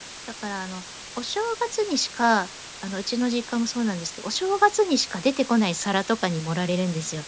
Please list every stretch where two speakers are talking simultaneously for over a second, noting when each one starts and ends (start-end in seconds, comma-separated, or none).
none